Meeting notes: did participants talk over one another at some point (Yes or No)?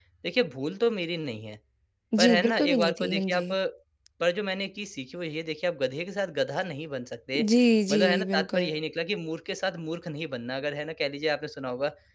Yes